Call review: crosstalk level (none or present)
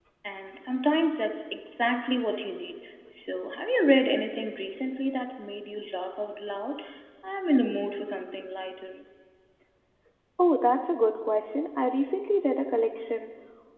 none